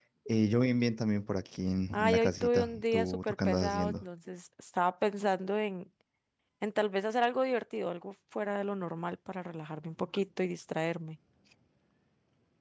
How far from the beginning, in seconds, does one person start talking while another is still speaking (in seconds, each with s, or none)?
1.9 s